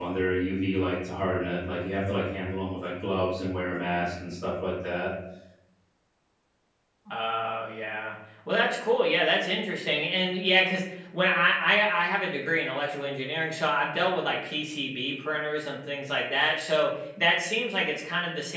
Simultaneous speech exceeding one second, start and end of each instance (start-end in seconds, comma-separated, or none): none